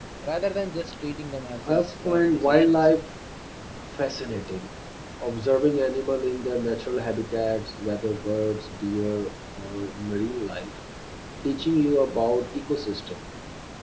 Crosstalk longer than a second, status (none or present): present